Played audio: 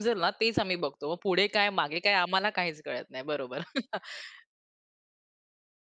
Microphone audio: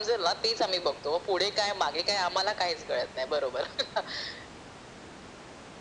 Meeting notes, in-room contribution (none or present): none